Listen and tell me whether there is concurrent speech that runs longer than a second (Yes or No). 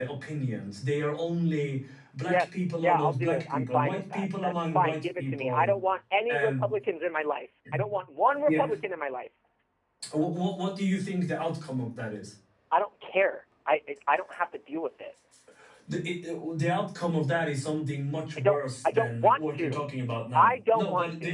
Yes